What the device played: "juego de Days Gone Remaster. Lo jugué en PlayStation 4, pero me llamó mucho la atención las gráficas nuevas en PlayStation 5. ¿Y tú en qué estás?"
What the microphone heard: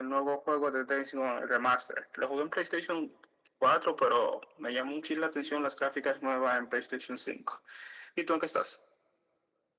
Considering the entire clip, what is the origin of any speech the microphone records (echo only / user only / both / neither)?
echo only